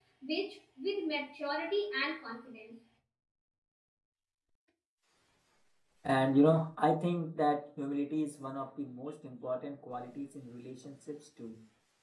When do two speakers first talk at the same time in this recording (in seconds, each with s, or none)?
none